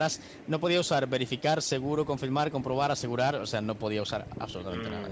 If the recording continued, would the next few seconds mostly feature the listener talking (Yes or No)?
Yes